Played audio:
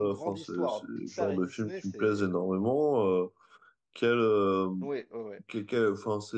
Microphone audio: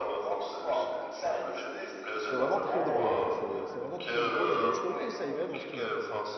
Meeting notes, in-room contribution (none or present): present